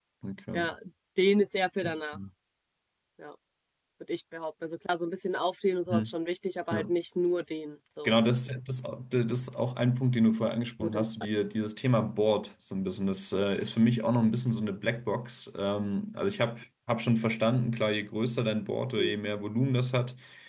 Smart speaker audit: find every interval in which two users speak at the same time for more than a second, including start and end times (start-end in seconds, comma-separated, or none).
none